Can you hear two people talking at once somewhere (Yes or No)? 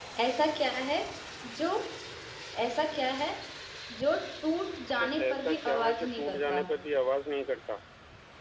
Yes